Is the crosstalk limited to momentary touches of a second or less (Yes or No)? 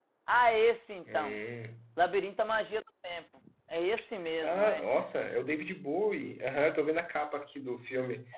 Yes